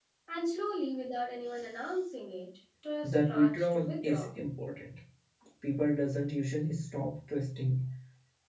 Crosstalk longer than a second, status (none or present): present